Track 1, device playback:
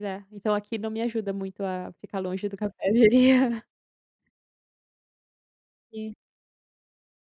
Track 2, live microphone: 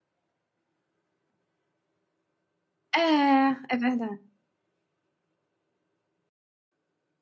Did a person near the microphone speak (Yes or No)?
Yes